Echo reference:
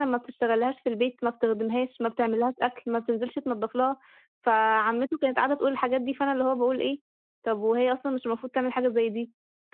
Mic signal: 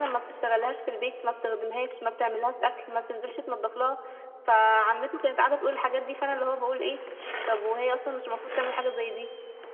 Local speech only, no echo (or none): none